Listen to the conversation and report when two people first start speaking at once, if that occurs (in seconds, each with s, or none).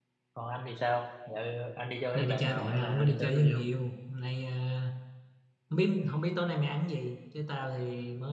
2.1 s